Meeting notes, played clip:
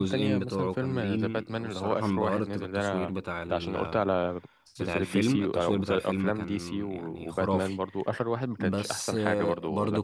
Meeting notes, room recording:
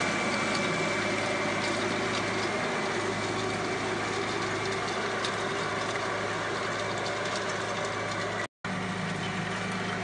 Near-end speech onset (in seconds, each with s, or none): none